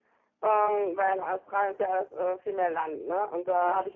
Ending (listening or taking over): listening